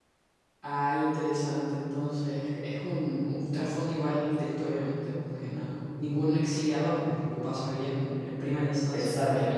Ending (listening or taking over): listening